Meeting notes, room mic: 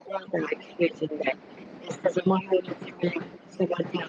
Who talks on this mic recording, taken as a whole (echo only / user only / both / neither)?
echo only